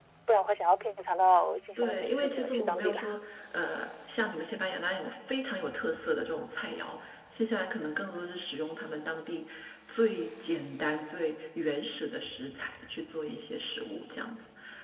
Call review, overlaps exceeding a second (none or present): present